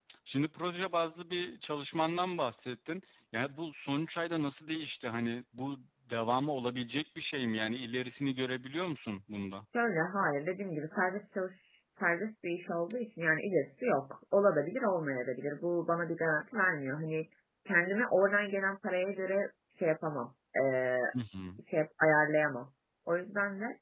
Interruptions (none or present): none